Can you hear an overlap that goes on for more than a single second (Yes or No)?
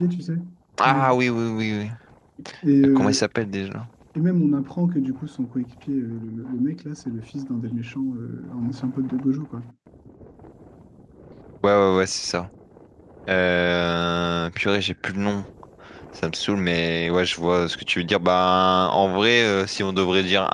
No